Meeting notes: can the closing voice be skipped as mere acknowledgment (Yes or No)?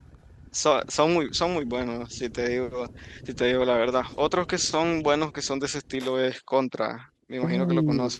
No